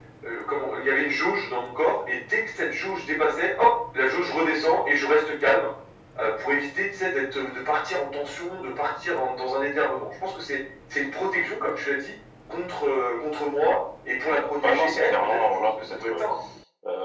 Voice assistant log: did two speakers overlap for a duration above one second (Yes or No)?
Yes